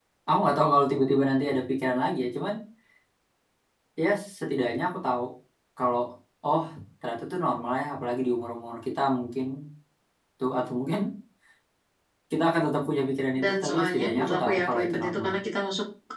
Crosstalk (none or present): present